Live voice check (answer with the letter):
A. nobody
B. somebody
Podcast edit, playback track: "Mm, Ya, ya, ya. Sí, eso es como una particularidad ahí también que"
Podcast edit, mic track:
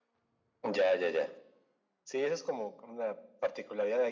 A